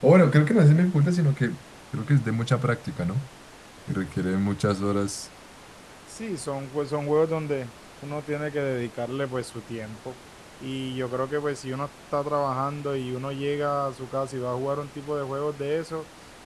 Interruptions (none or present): none